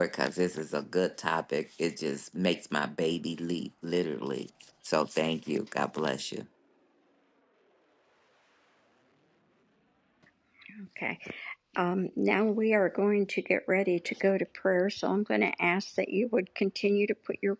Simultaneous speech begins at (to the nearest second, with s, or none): none